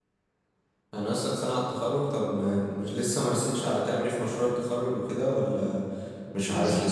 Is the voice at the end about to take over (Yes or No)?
Yes